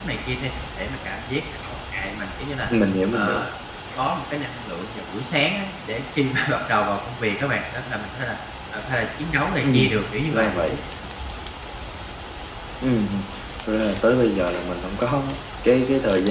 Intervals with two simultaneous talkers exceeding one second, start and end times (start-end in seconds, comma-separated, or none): none